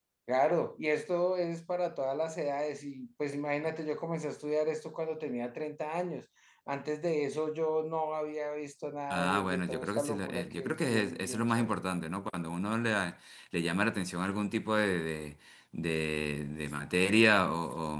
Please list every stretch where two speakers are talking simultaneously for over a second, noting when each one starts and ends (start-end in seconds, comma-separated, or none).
9.1-11.7